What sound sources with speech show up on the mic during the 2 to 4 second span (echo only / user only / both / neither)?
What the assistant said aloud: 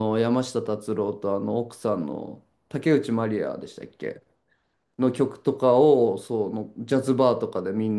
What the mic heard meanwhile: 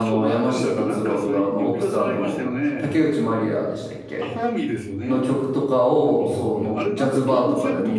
both